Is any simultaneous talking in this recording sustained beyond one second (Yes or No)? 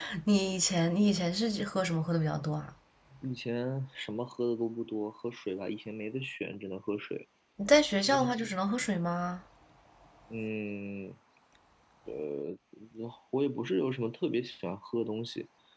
No